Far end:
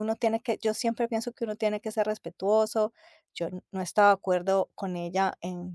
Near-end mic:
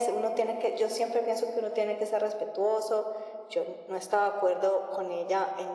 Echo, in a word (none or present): present